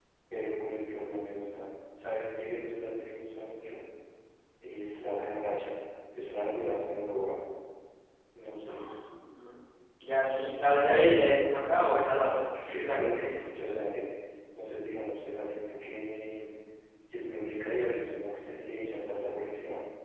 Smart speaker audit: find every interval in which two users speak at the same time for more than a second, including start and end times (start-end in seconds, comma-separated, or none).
12.2-13.4